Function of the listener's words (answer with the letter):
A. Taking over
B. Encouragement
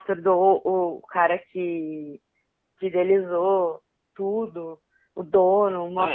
B